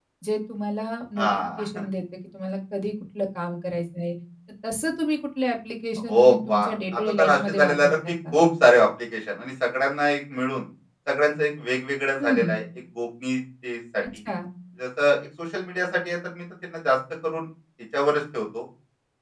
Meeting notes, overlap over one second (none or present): present